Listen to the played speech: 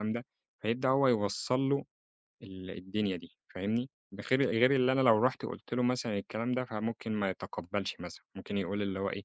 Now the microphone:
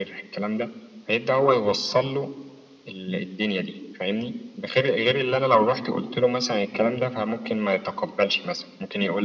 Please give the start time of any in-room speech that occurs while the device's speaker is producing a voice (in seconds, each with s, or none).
none